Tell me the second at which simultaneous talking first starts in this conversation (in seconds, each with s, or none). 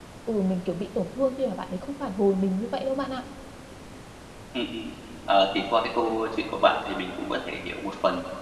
none